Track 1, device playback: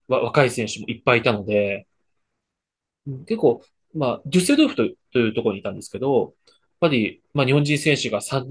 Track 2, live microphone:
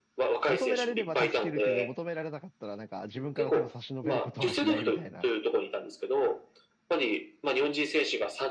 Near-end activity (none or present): present